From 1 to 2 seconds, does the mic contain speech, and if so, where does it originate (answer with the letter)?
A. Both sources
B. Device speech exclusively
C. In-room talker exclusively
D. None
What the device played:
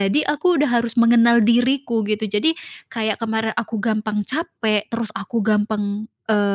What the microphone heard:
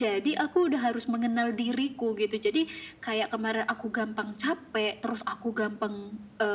B